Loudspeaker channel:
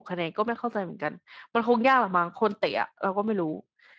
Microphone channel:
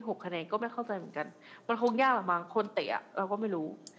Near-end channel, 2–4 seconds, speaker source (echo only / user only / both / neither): echo only